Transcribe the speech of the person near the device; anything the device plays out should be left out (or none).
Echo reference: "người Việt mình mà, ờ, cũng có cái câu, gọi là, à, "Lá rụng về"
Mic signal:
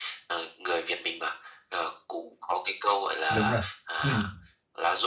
Đúng rồi. Ừm.